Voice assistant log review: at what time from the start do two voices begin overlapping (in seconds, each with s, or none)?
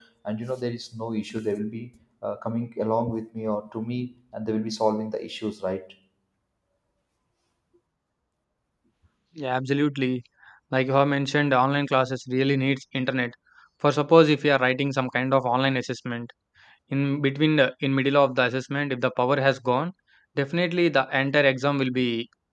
none